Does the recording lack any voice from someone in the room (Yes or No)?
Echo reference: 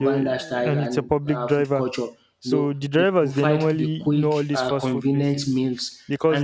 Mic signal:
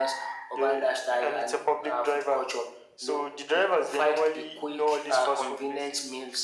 Yes